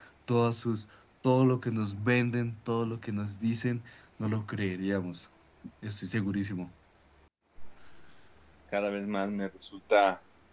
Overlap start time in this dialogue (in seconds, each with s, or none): none